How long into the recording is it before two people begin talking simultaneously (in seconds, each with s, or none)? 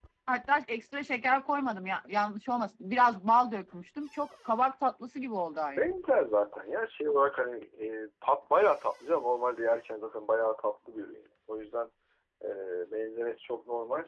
none